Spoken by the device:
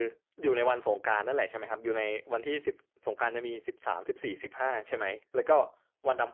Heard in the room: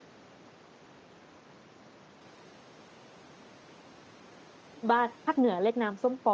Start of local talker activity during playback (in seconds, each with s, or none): 4.9 s